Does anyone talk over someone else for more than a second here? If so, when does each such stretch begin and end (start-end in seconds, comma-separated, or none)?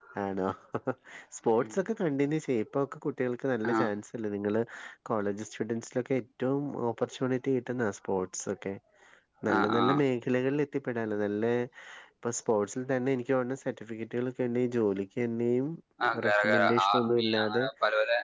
16.2-17.6